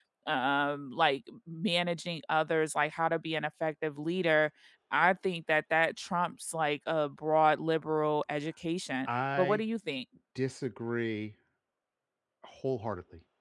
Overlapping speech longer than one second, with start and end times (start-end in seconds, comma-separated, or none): none